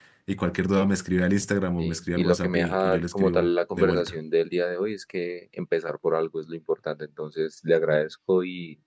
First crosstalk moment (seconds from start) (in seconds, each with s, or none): 1.8 s